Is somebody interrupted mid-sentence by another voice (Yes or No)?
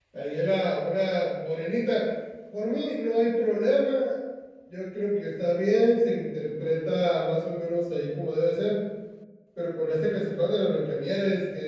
No